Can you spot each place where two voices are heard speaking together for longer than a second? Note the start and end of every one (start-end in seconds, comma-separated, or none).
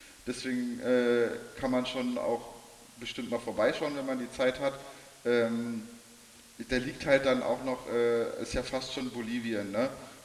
none